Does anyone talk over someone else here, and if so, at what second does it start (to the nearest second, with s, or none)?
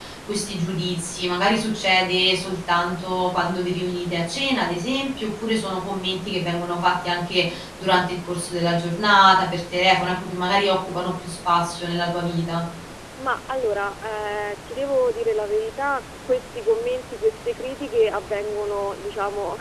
none